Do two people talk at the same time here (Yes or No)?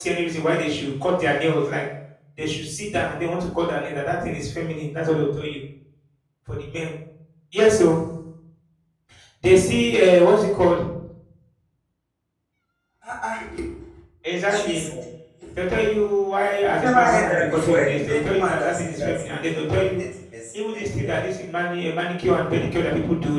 Yes